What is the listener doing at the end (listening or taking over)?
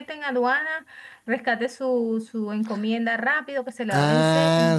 taking over